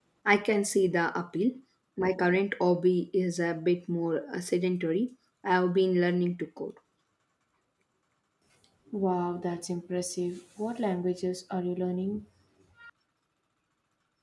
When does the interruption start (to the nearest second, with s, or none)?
none